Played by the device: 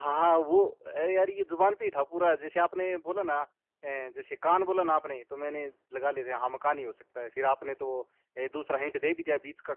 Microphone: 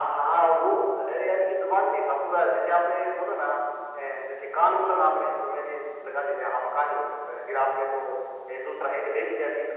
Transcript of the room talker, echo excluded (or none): none